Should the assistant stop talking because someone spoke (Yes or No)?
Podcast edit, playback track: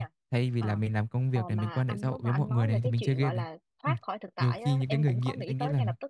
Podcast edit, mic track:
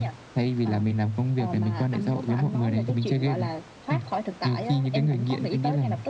No